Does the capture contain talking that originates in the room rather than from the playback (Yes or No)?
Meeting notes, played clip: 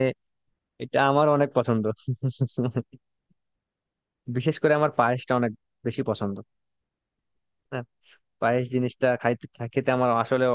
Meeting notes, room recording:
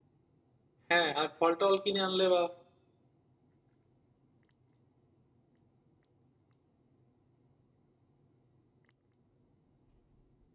Yes